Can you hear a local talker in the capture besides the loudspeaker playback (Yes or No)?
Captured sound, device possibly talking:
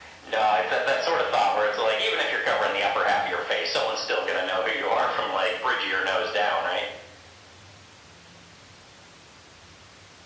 No